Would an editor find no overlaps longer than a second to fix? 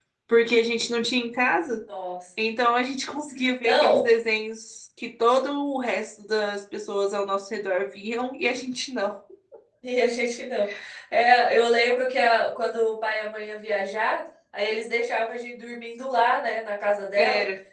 Yes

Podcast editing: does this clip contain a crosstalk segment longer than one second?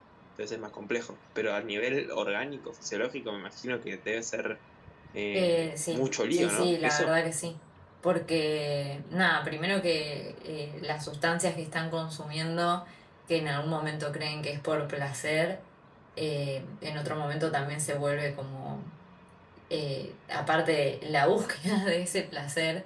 Yes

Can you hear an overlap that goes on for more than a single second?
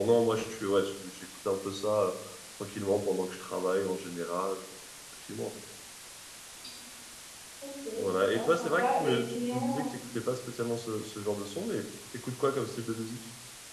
Yes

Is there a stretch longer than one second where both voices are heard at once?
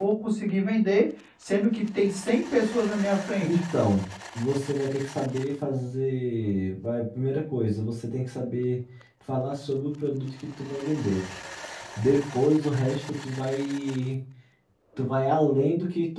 No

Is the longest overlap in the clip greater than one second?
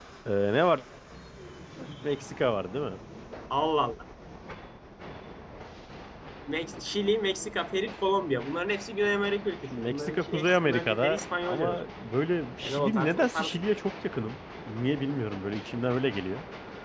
Yes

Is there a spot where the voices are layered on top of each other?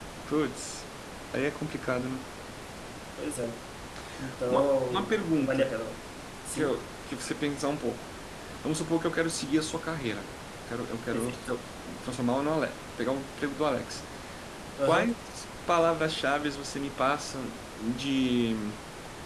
Yes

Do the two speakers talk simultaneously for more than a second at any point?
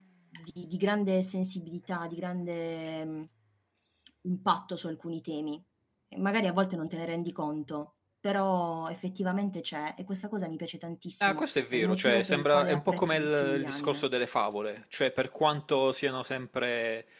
Yes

